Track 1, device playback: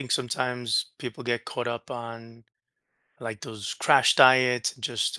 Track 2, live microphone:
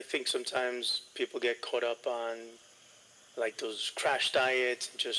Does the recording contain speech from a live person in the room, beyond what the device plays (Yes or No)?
No